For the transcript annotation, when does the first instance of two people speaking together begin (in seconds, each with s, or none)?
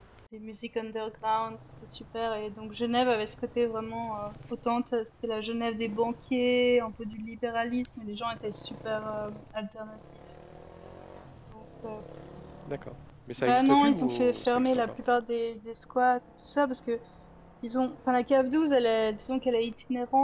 13.4 s